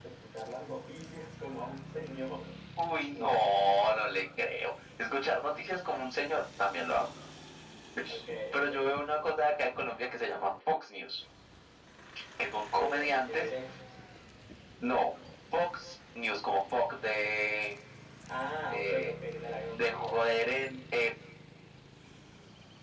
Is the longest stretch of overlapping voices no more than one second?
No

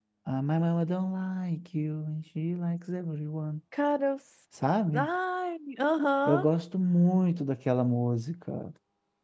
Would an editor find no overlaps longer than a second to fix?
Yes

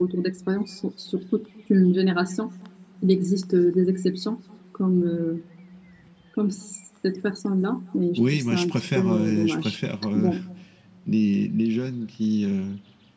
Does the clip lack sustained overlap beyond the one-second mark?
No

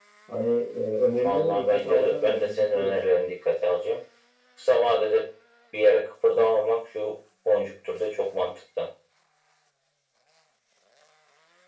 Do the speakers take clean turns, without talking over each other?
No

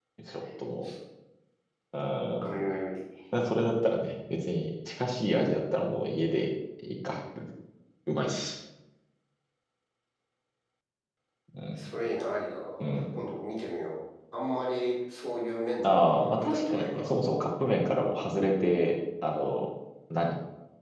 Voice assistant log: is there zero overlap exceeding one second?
No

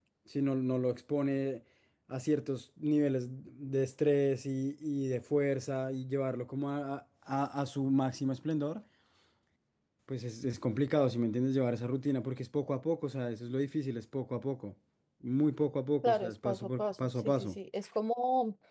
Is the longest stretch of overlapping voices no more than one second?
No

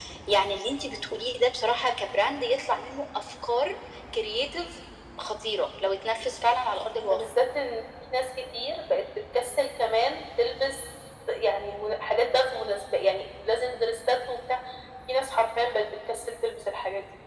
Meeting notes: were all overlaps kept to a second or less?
Yes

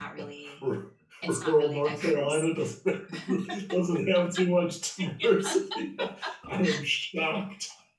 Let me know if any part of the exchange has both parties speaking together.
Yes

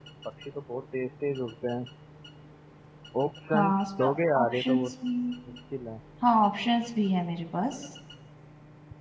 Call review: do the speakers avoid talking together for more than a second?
No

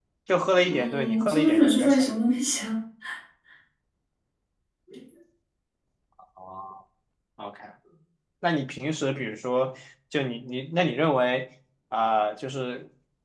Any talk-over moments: Yes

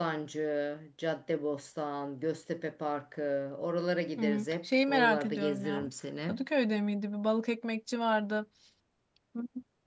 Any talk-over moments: Yes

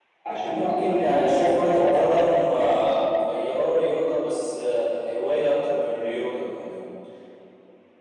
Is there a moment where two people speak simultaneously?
Yes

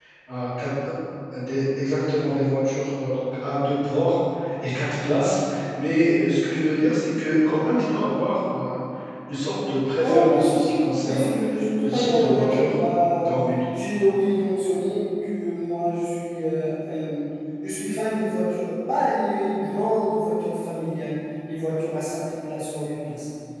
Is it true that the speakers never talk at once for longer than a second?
No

